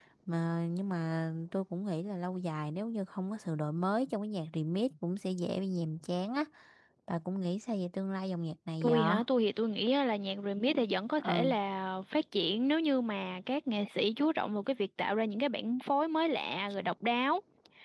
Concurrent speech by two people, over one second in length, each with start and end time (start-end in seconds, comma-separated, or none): none